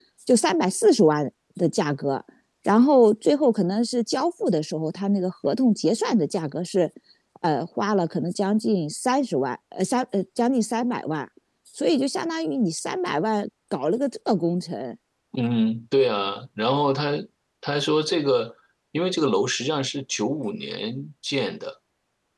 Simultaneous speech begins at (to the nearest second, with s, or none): none